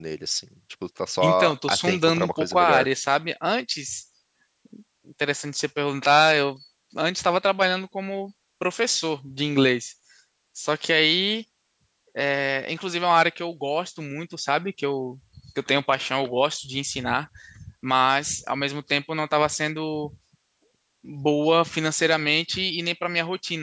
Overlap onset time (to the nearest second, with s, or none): 1 s